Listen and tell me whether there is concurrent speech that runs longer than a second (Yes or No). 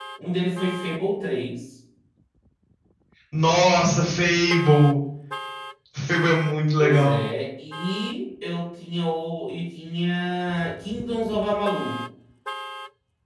No